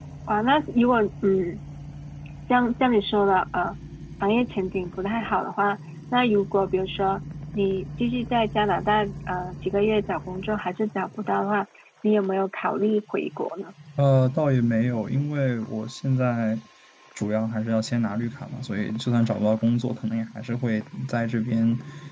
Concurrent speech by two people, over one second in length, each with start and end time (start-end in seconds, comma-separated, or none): none